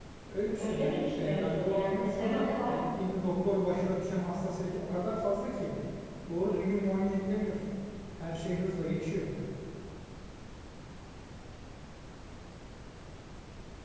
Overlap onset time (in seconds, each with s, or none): 0.6 s